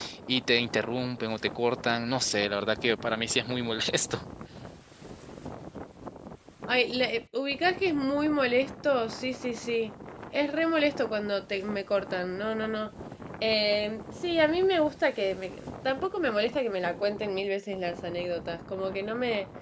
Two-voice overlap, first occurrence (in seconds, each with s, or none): none